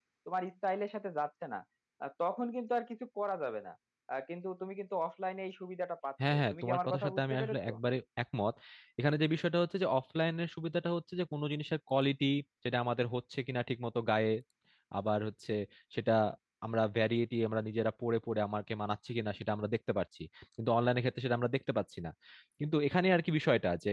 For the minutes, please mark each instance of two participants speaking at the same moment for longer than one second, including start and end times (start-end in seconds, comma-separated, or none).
6.3-7.7